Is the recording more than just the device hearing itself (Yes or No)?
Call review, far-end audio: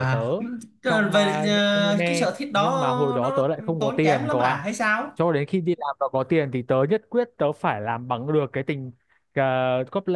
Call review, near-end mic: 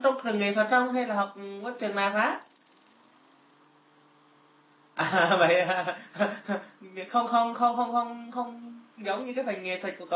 Yes